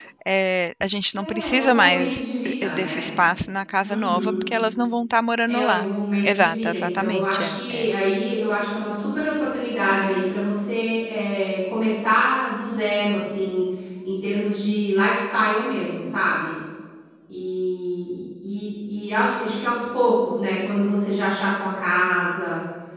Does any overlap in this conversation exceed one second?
Yes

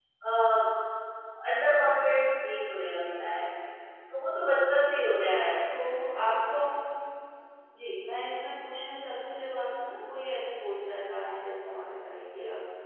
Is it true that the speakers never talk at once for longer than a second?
Yes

